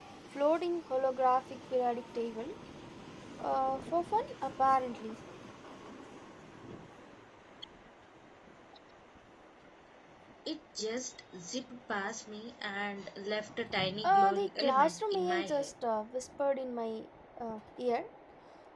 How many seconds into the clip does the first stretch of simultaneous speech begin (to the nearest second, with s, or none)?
14 s